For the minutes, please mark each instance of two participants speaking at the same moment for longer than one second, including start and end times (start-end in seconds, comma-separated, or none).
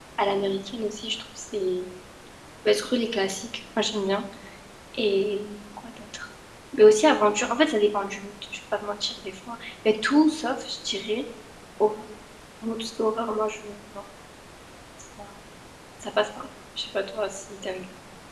none